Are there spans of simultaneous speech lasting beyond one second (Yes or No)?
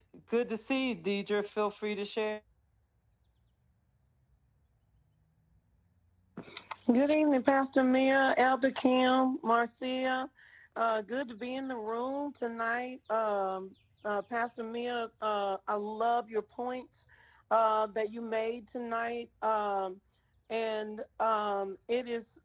No